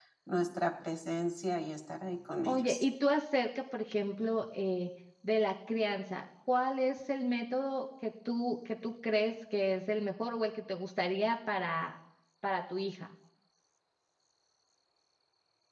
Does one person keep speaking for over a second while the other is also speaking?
No

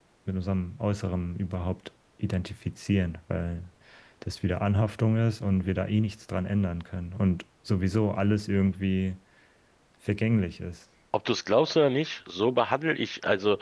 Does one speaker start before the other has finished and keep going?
No

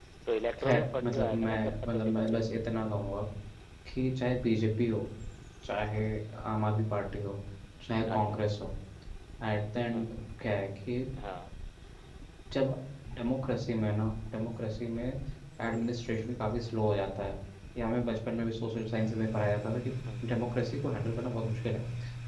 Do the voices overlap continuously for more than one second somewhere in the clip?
Yes, from 0.6 s

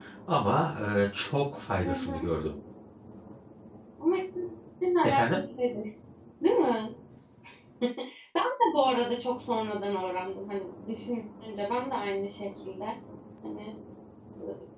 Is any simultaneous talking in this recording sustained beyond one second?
No

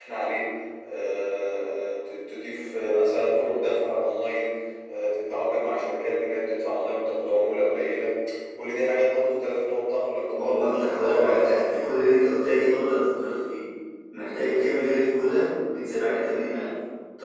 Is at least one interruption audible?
Yes, from 10.3 s

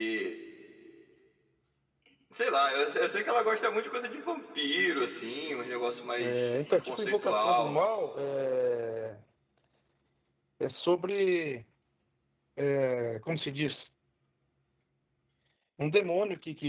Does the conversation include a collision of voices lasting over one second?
Yes, from 6.2 s

